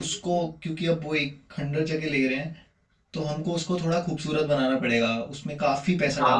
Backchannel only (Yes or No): No